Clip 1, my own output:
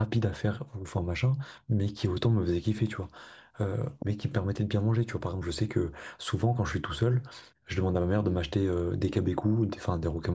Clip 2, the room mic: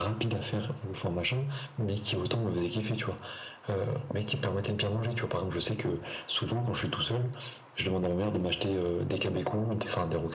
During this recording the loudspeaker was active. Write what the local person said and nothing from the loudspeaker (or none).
none